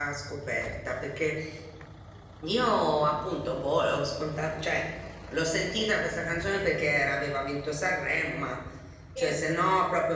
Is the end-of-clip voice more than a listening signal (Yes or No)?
No